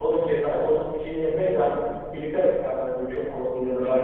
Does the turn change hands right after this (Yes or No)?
Yes